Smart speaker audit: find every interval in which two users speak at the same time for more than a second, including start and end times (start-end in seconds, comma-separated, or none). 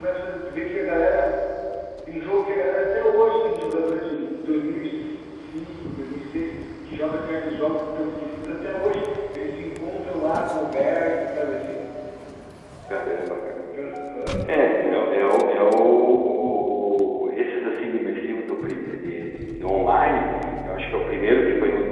none